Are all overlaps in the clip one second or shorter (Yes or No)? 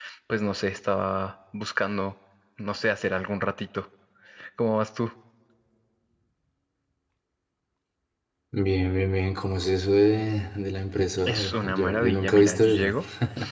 No